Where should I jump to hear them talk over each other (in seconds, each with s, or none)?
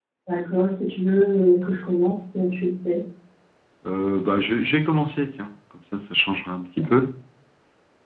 none